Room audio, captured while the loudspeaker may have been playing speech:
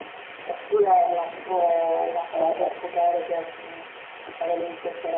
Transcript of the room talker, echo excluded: Eh,

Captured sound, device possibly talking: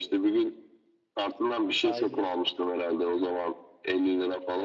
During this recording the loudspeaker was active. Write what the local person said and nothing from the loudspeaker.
aynen.

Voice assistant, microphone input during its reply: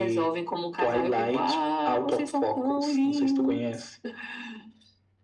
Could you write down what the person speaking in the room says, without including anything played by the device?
none

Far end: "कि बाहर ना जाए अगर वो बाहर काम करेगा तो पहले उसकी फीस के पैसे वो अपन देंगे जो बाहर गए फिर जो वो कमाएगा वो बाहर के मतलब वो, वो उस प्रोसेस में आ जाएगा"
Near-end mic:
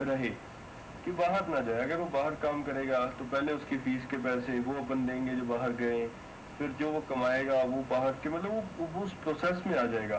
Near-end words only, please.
none

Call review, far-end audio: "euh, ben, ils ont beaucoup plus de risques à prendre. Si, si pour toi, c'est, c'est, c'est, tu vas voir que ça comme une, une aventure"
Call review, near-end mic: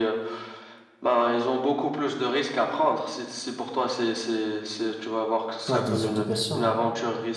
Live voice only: Ouais, des obligations. hein.

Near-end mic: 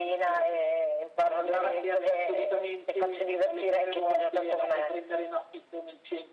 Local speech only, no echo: none

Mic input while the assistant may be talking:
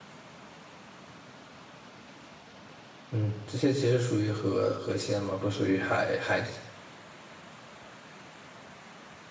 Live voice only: 嗯，这些其实属于河河鲜嘛，不属于海海，

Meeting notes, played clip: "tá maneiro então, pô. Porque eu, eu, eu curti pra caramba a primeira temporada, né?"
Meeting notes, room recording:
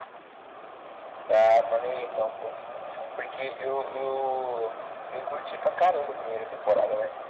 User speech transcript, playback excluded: none

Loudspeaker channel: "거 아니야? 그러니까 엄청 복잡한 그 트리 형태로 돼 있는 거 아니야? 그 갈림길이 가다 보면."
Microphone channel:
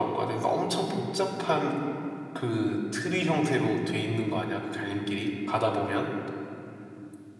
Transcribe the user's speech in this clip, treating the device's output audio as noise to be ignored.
none

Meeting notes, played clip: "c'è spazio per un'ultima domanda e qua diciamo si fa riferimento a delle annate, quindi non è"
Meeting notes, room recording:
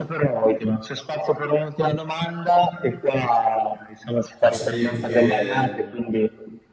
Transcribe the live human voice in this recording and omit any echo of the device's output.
Posso dirti che

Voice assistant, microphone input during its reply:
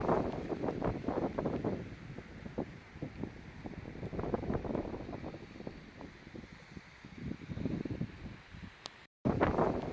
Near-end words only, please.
none

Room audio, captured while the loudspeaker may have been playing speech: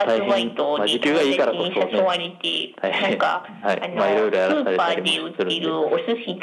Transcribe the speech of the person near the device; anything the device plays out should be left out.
none

